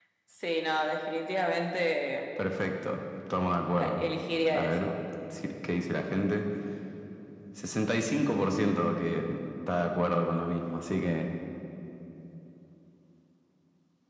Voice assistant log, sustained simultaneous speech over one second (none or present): none